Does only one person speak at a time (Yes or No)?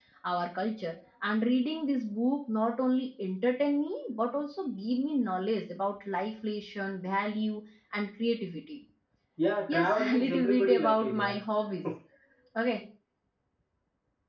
No